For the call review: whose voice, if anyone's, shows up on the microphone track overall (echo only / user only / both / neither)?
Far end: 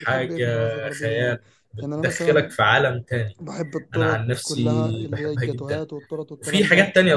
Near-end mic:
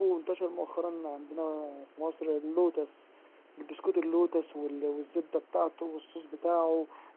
user only